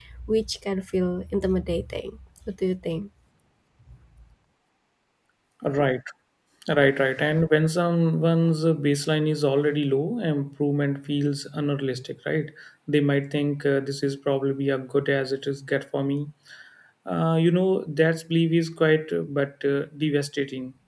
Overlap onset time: none

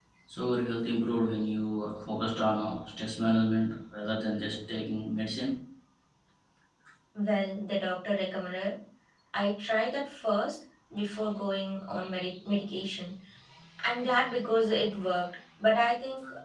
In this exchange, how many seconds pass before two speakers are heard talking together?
none

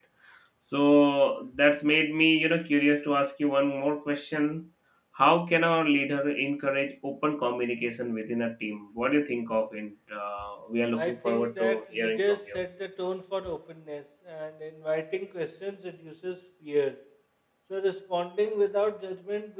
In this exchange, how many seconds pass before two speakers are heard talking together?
10.9 s

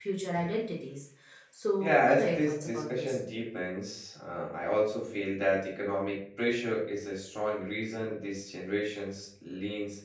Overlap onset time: 1.8 s

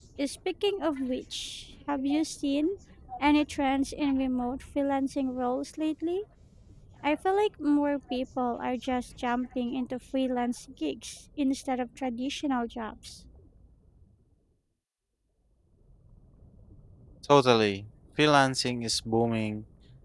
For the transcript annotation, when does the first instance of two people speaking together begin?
none

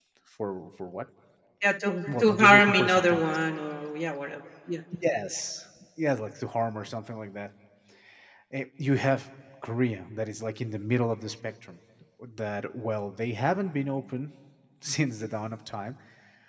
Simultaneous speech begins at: 2.1 s

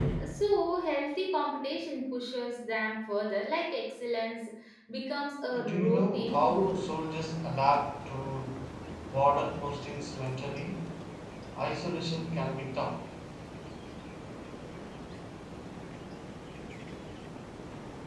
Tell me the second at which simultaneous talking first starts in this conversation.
5.5 s

